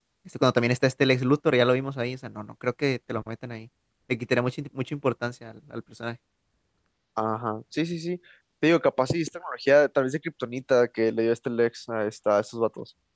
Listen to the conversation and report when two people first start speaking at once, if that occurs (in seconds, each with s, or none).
none